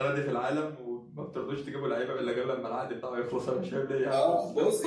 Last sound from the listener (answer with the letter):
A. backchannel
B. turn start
B